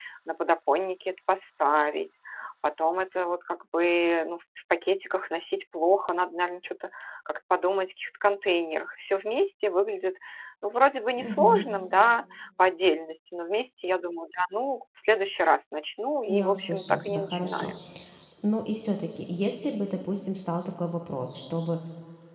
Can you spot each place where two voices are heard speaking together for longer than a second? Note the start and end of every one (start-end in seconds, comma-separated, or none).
16.3-17.7